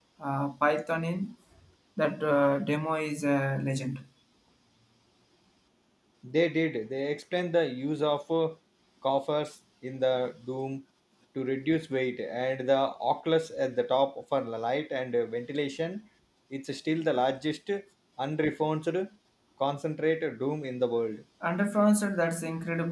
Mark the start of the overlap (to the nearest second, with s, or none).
none